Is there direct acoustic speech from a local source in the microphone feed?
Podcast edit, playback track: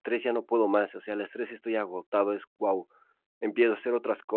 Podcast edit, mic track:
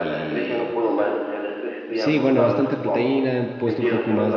Yes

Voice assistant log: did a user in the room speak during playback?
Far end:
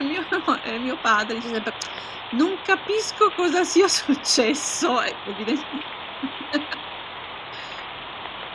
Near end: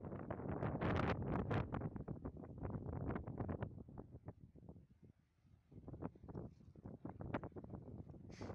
No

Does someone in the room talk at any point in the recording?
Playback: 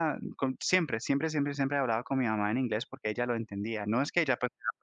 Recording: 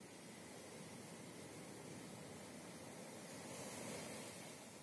No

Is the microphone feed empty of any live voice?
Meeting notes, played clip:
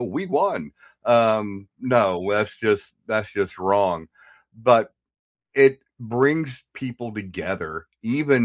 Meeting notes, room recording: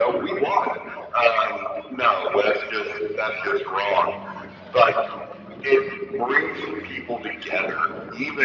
Yes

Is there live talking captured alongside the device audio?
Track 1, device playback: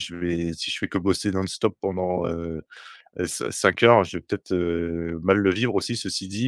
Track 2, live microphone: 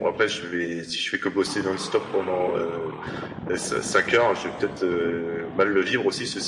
No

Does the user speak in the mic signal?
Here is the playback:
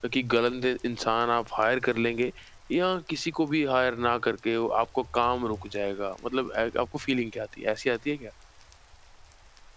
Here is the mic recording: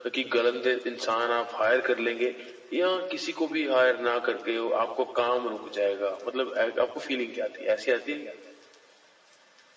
No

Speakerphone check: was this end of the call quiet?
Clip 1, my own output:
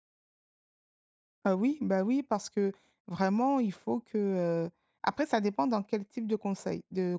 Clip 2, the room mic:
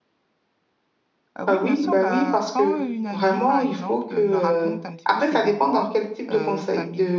No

